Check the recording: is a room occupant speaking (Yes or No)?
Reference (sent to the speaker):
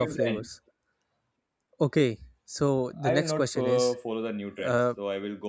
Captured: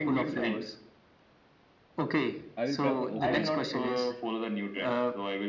Yes